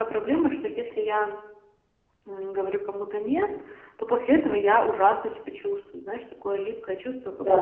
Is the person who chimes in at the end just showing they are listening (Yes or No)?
Yes